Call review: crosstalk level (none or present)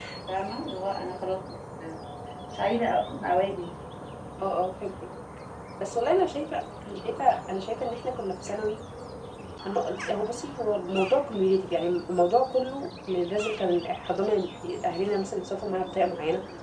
none